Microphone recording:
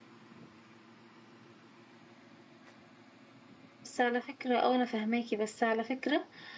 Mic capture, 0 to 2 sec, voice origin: neither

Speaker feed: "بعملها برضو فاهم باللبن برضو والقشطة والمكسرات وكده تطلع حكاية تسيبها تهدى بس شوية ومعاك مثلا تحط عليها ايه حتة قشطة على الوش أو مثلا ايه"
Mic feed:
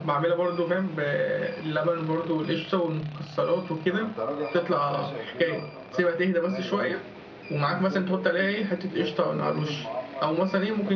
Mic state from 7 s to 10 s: both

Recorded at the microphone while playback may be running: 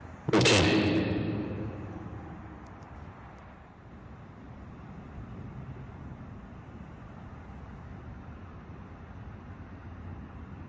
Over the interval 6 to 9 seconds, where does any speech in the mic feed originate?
neither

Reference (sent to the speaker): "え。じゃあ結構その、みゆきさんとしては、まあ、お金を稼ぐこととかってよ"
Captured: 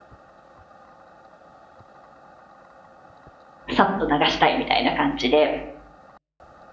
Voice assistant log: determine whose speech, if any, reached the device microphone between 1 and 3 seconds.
neither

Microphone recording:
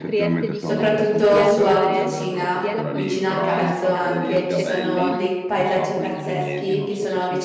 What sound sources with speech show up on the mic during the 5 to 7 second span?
both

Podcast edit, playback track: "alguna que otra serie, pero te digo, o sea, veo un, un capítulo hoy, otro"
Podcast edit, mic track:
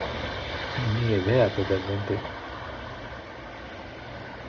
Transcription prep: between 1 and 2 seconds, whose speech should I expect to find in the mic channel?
user only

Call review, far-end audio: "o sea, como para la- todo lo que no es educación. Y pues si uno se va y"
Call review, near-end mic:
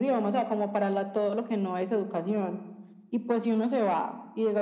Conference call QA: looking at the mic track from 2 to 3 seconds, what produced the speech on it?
echo only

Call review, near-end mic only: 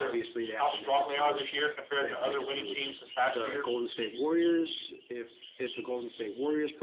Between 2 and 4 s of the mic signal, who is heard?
both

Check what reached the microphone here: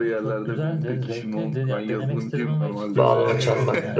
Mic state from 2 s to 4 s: both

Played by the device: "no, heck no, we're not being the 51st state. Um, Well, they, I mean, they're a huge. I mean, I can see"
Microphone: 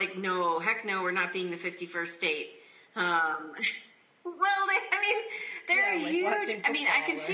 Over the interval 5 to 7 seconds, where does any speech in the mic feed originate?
both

